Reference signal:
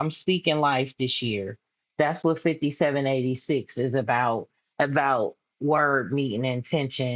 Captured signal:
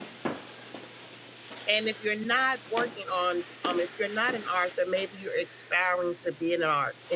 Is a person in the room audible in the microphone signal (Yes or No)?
Yes